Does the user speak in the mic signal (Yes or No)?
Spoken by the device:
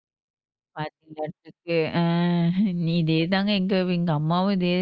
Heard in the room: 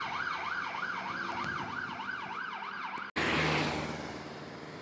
No